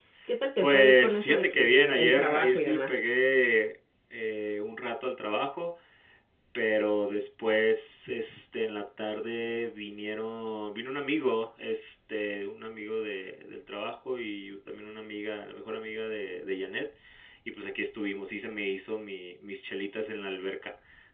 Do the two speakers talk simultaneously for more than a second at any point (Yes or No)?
Yes